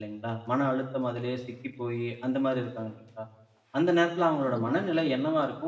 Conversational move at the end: listening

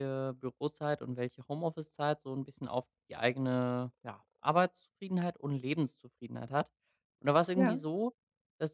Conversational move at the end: listening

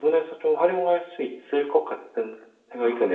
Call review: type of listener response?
taking over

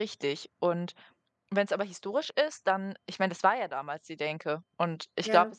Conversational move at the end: listening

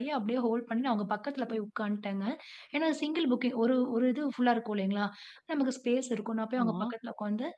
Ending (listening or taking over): listening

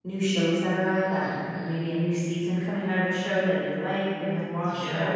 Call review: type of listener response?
taking over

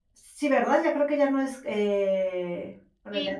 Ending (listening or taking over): taking over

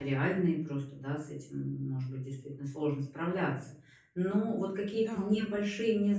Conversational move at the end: listening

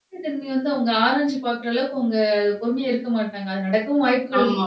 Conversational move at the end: listening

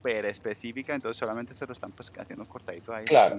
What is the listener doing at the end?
taking over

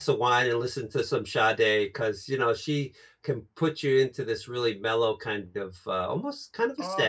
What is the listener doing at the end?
taking over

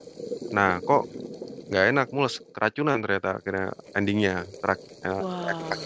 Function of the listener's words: listening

